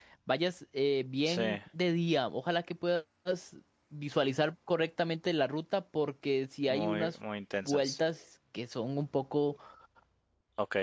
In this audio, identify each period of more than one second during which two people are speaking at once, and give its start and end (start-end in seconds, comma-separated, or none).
none